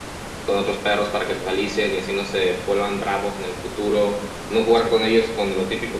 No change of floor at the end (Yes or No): Yes